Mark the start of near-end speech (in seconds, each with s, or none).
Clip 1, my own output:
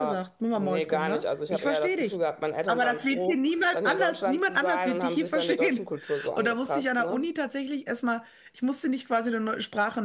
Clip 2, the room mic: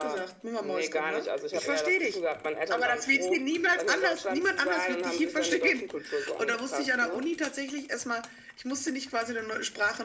none